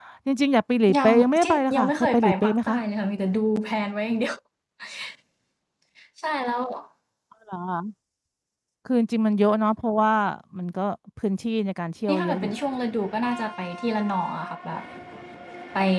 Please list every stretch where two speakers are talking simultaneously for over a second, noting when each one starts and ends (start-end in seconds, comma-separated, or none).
1.0-2.8